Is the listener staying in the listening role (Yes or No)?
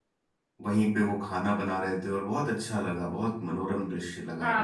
No